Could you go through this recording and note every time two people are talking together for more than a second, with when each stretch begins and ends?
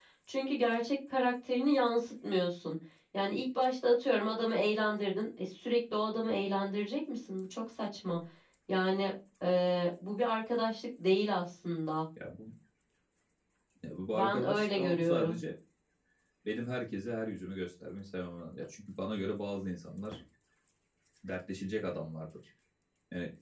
14.1-15.4

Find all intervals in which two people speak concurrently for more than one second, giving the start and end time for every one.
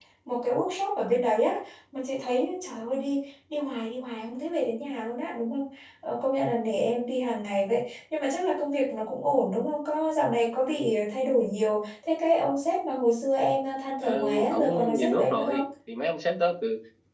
14.0-15.6

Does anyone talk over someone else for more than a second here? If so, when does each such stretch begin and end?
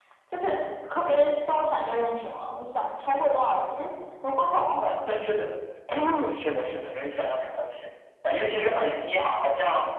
none

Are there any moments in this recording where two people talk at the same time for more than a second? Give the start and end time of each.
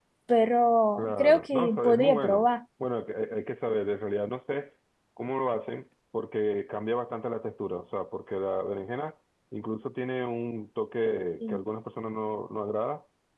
1.0-2.5

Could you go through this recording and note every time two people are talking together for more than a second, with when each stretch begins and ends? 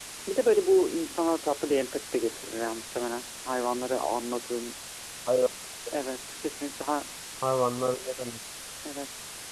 none

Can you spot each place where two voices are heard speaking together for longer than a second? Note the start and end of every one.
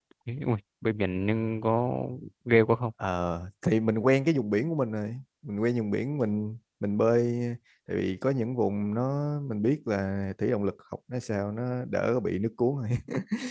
none

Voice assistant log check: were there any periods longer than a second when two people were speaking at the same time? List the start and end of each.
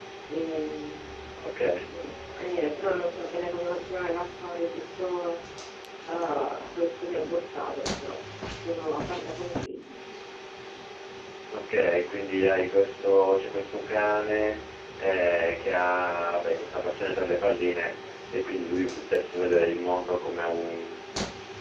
none

